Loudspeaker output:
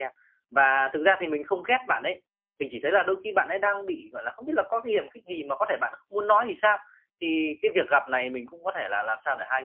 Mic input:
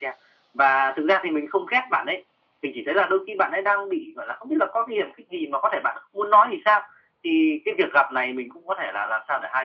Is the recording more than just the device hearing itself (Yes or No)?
No